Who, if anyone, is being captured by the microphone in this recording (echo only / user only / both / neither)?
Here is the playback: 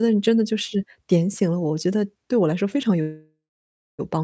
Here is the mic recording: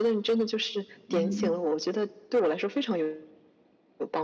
both